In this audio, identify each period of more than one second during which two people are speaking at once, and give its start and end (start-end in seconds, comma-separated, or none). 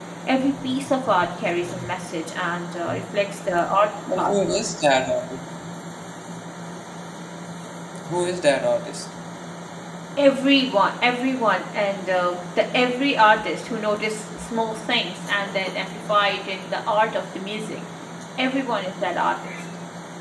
none